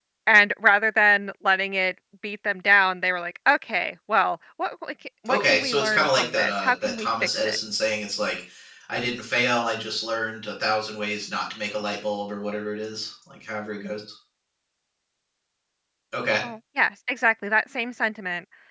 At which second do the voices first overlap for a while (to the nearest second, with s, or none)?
5 s